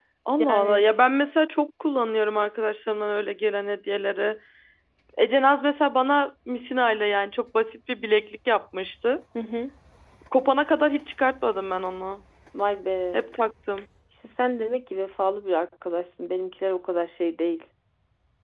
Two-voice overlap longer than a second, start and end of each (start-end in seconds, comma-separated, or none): none